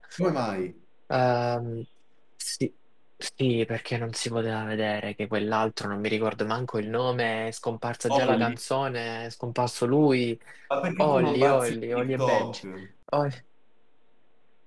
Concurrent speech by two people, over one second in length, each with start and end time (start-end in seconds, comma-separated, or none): 11.0-12.6